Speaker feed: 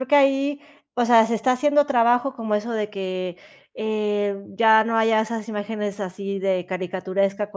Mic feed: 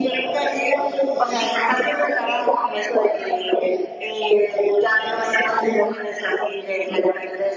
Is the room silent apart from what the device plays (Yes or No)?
Yes